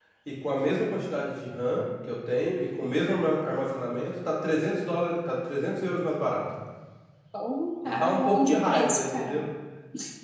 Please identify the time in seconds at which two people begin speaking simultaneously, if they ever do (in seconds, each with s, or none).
7.8 s